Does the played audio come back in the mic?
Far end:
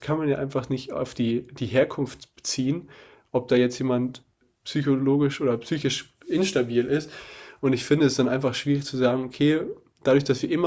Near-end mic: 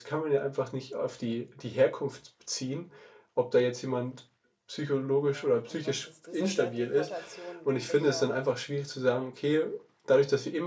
Yes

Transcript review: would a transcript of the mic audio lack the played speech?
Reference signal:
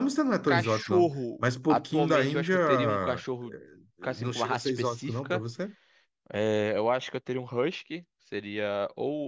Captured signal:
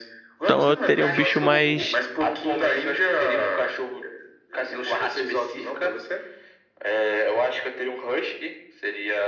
No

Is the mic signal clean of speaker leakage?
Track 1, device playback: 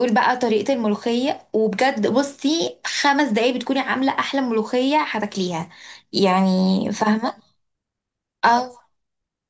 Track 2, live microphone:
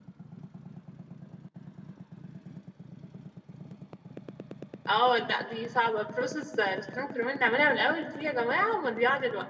Yes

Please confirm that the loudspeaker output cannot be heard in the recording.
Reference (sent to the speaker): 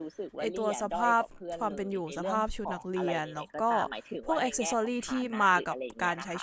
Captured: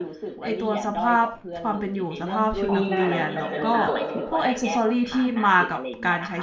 No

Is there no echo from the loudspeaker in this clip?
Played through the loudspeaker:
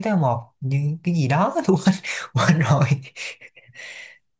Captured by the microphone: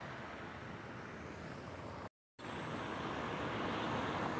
Yes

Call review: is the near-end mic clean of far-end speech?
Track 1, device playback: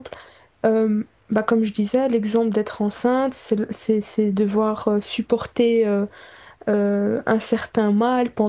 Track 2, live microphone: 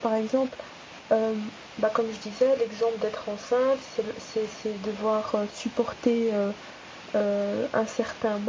No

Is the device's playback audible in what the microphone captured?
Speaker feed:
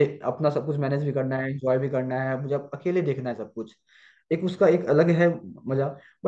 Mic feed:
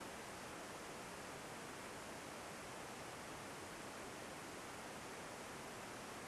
No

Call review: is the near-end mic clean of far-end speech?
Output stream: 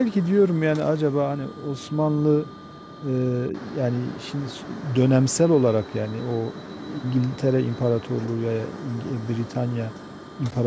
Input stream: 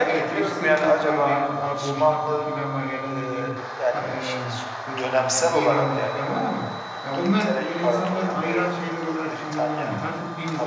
No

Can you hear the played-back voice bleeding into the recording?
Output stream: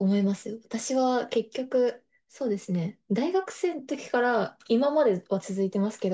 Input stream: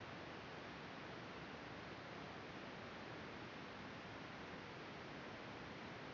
No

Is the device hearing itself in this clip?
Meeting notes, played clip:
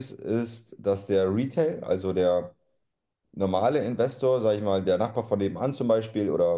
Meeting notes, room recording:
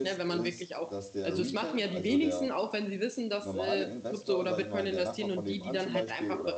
Yes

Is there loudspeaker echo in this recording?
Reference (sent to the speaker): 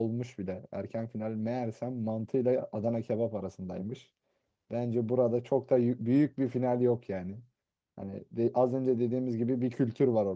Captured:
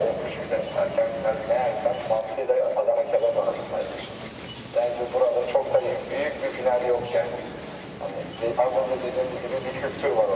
Yes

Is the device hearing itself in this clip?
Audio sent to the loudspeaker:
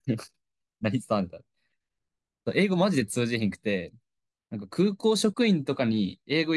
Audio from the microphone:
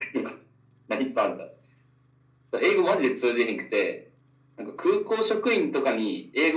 Yes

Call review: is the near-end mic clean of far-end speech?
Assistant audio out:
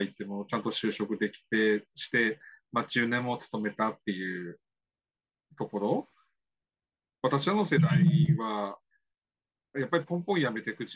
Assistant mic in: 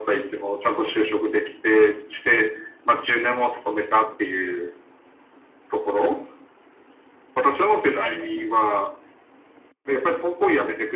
No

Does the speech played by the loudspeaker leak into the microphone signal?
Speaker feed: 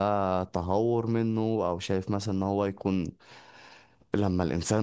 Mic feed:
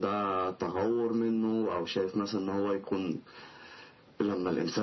Yes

